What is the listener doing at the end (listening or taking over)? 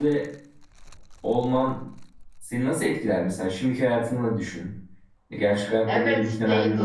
taking over